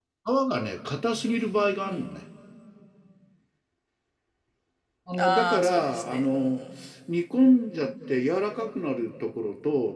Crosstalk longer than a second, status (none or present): present